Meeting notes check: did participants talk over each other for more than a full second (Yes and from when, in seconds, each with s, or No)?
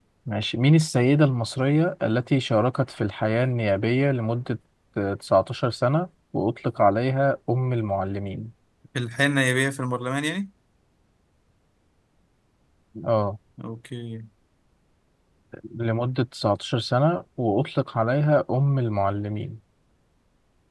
No